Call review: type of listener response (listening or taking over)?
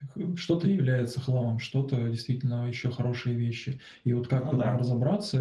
listening